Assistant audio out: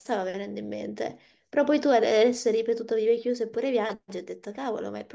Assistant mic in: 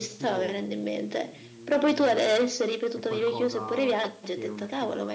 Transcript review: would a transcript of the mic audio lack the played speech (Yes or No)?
No